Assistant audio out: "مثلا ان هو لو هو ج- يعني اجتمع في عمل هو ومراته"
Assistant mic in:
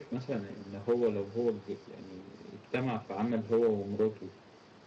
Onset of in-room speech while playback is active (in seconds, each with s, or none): none